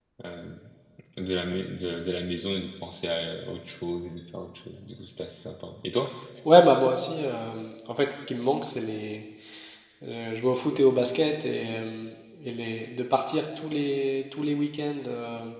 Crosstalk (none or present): none